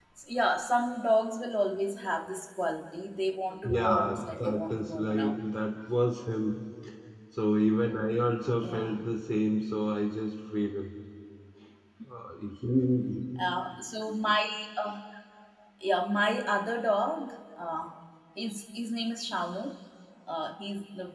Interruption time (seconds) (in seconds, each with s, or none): 3.6 s